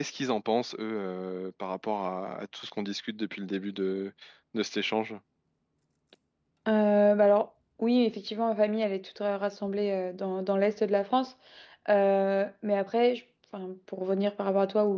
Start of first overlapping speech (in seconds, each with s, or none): none